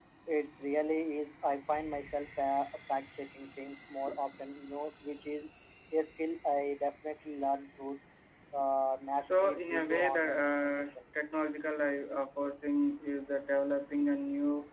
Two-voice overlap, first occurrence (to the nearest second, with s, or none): 9 s